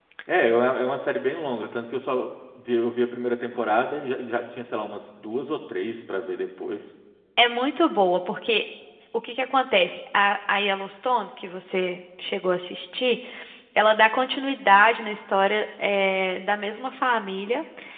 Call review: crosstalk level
none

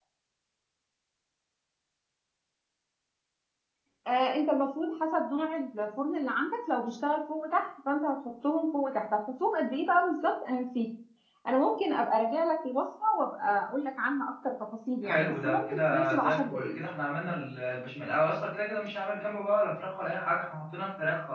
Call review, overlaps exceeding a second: present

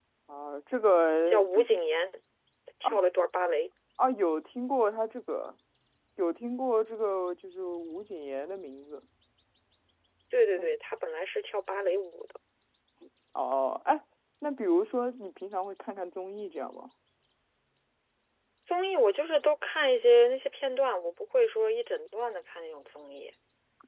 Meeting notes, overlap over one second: none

